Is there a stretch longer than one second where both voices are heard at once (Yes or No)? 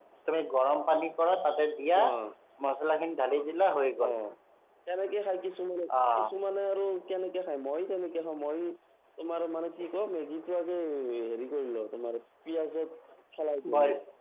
No